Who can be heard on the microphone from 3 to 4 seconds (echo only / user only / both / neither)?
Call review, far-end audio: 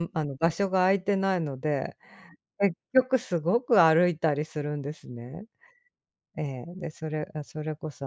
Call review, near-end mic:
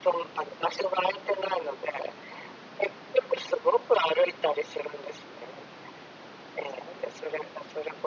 echo only